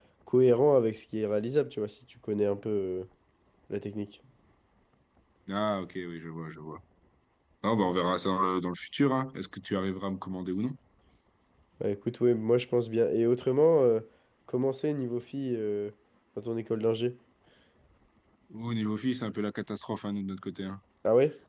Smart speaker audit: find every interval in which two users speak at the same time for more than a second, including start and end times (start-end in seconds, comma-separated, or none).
none